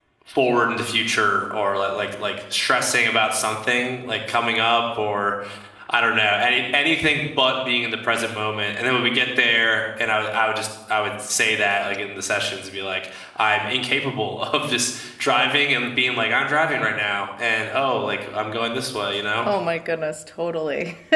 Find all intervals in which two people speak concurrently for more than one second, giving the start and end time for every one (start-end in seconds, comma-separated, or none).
none